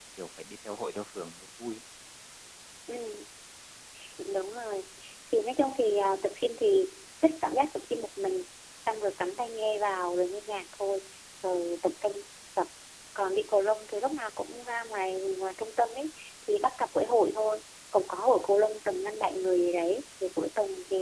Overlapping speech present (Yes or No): No